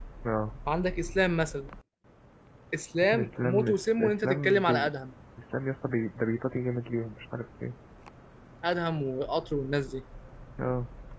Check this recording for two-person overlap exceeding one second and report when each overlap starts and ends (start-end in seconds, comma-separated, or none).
3.1-4.9